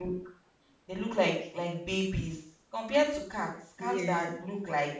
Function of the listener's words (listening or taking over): listening